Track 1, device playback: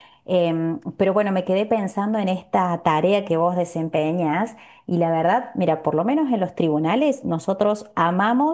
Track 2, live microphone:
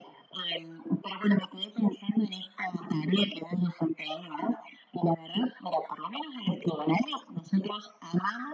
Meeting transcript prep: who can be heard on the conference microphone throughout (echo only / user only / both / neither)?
echo only